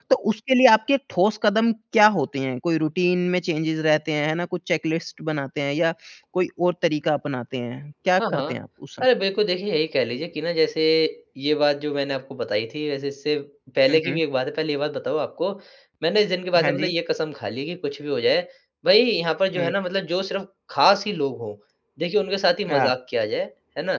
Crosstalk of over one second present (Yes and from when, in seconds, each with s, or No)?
No